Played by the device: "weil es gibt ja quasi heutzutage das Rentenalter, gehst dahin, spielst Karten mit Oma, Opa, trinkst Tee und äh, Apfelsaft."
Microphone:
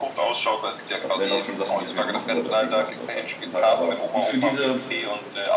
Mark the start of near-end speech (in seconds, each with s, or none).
1.0 s